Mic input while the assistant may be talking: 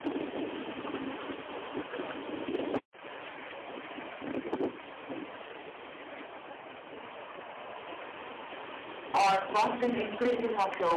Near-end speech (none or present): present